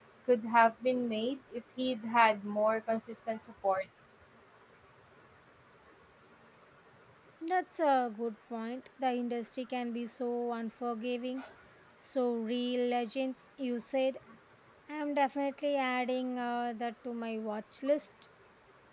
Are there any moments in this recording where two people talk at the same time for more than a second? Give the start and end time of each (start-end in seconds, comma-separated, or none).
none